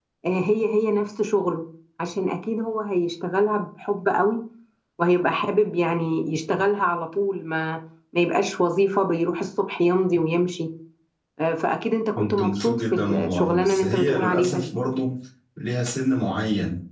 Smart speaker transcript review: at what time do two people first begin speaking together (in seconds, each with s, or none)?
12.2 s